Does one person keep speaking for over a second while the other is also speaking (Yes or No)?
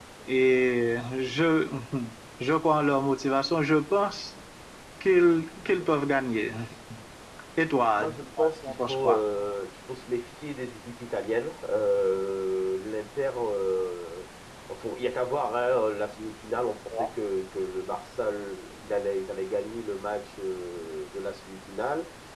Yes